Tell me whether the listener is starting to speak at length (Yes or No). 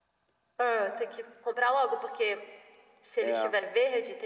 No